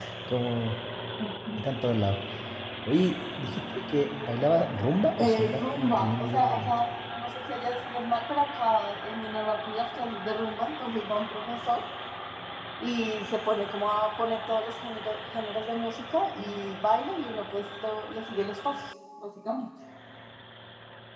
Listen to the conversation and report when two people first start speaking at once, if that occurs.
5.2 s

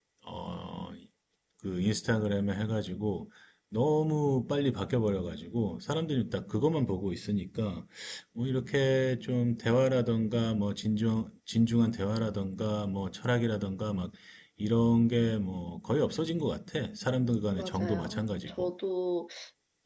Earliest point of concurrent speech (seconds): 17.5 s

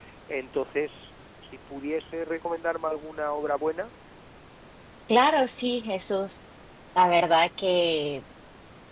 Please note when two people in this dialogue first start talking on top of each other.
none

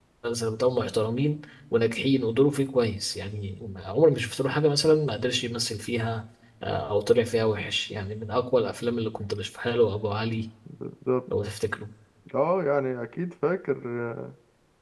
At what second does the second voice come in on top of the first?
none

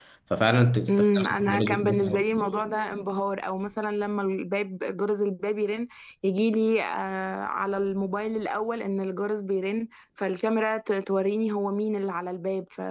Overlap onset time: 0.9 s

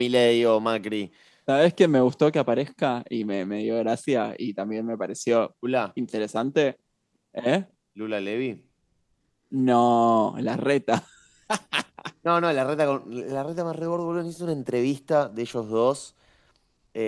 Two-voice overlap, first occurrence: none

